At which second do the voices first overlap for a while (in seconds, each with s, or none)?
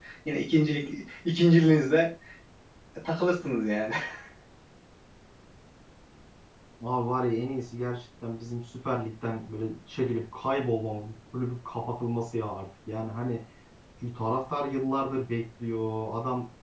none